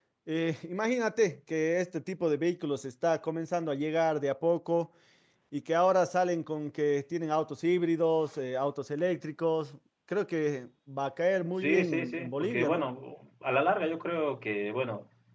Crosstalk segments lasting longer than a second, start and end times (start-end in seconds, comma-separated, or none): 11.6-12.9